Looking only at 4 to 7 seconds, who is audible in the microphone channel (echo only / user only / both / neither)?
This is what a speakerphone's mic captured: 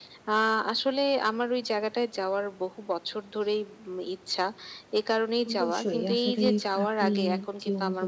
both